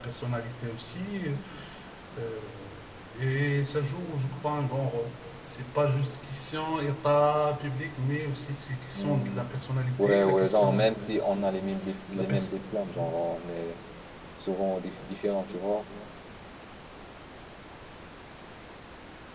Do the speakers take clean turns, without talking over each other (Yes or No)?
No